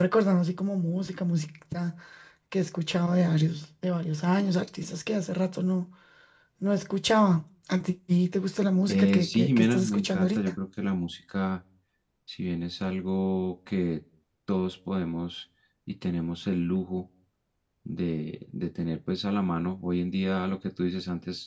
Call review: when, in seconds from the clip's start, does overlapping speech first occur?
8.9 s

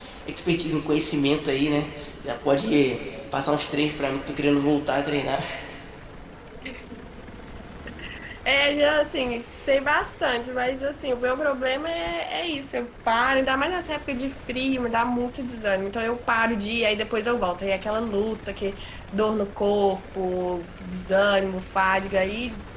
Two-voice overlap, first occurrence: none

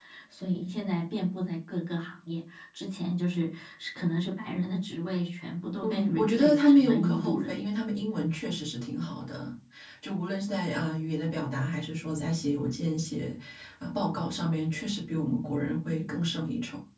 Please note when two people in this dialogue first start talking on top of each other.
5.8 s

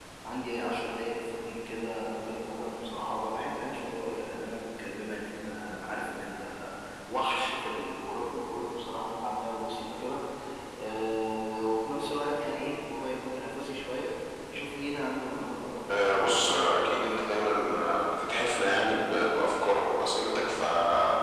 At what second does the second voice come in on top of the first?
15.9 s

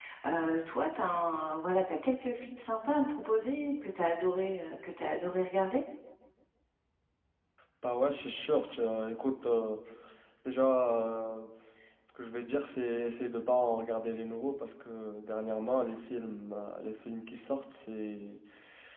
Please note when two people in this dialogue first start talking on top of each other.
none

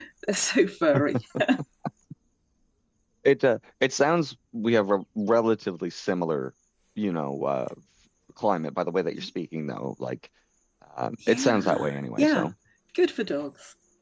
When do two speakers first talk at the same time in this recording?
11.3 s

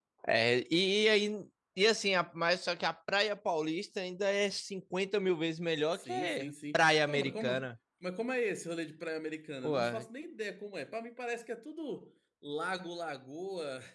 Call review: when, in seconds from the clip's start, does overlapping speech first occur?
5.9 s

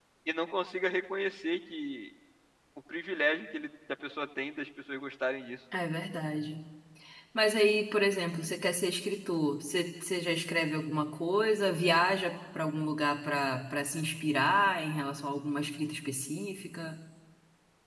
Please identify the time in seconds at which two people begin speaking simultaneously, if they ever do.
none

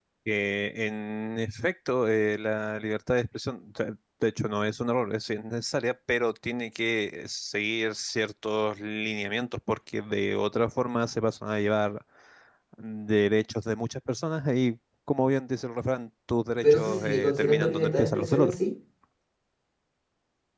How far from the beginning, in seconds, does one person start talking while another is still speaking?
16.6 s

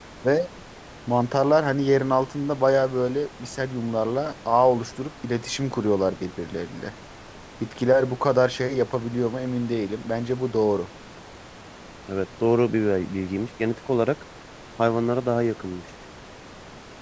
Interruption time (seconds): none

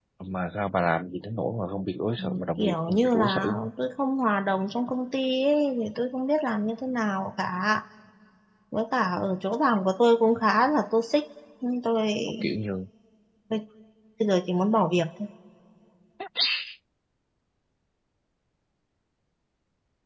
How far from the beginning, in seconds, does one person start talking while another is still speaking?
2.2 s

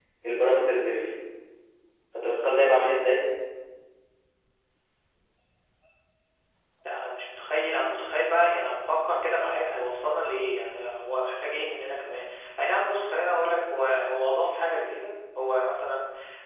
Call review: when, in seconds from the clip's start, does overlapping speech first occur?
none

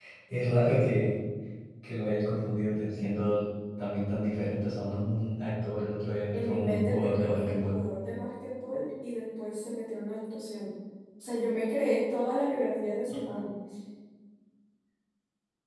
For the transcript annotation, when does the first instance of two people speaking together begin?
6.3 s

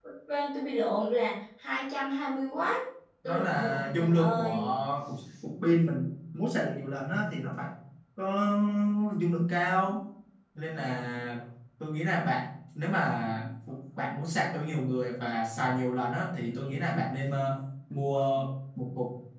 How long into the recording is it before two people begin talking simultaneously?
3.2 s

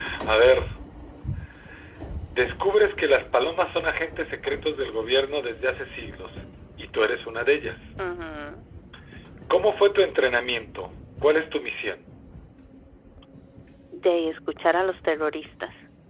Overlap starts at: none

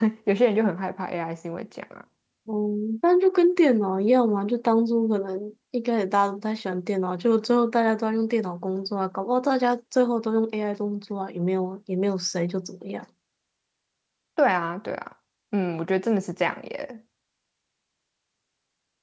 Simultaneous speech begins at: none

